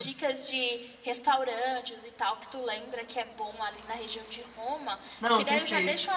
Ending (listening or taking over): listening